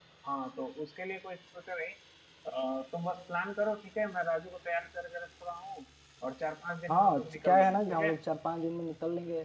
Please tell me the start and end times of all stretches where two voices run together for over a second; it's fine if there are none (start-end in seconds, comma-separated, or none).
6.9-8.1